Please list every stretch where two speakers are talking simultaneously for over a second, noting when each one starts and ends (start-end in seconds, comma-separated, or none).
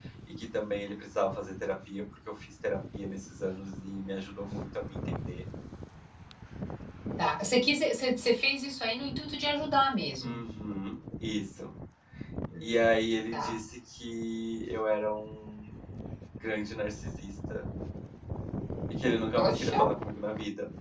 none